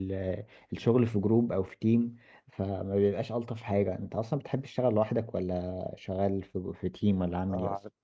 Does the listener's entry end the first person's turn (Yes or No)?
Yes